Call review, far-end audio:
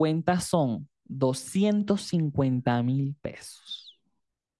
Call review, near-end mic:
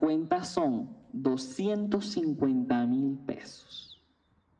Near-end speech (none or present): none